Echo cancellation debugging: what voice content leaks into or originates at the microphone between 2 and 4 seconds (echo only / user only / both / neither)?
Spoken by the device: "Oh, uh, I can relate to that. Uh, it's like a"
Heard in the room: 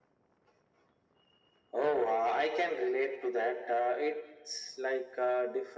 echo only